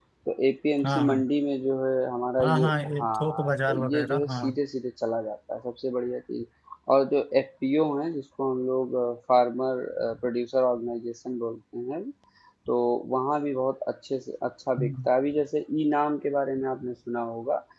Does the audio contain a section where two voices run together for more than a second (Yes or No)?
Yes